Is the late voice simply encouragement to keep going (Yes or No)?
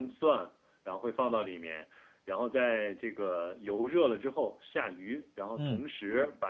Yes